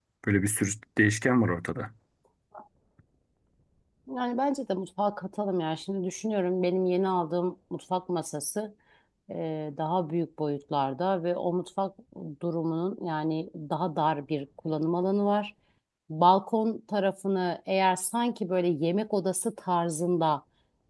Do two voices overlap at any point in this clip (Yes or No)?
No